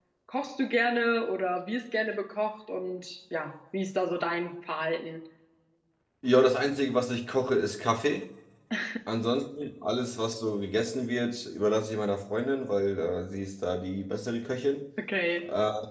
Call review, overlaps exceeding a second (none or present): none